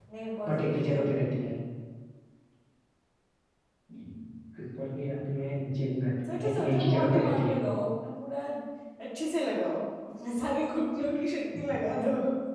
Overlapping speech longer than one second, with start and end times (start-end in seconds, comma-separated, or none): 6.3-7.6